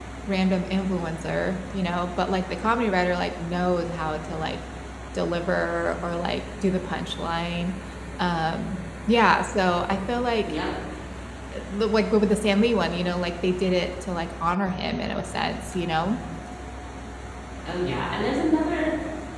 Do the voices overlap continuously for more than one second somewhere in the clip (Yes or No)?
No